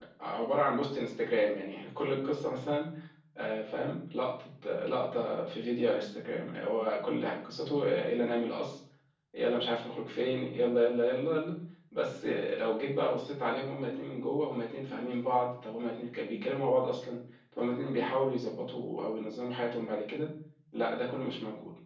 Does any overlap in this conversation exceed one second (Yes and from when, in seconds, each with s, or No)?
No